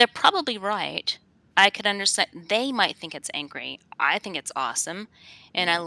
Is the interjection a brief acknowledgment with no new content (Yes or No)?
Yes